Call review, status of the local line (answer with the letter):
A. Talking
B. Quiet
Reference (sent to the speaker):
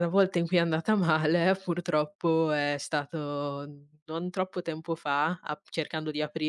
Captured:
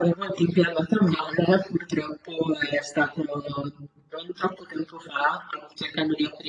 B